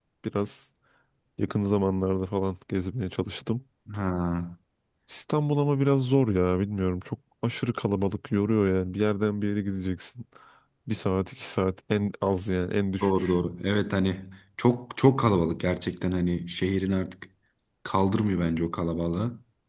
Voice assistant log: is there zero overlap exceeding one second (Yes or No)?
Yes